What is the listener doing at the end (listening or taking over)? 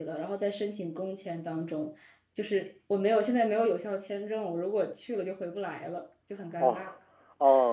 taking over